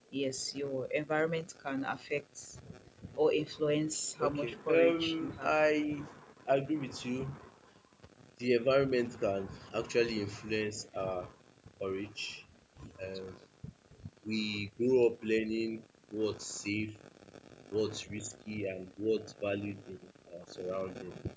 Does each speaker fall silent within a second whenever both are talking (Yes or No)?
No